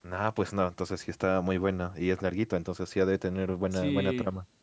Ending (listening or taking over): taking over